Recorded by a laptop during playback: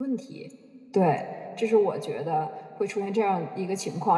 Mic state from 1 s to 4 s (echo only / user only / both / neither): user only